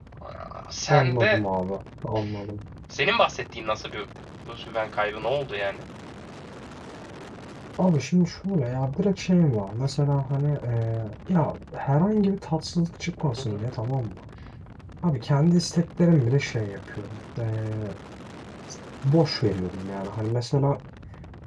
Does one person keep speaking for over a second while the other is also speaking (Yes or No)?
No